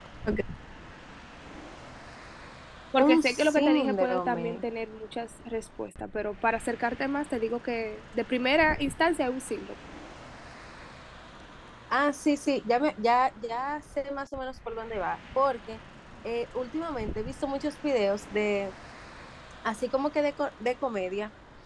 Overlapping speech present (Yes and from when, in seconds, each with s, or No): Yes, from 3.0 s